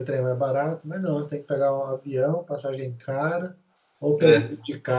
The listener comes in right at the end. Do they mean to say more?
No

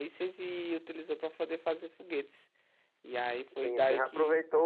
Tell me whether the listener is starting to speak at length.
Yes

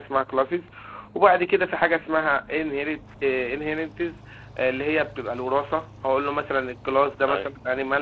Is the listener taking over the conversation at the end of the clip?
No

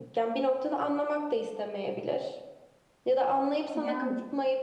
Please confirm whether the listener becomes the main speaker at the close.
No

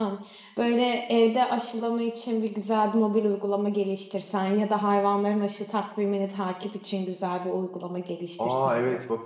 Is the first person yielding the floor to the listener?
Yes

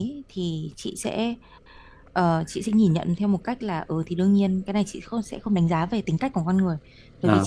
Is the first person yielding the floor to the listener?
No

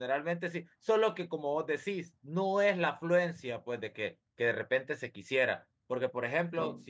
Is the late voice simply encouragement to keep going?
Yes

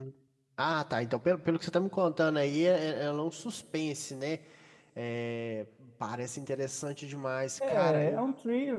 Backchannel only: No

